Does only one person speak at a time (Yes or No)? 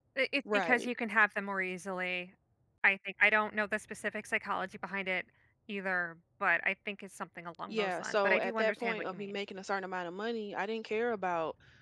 No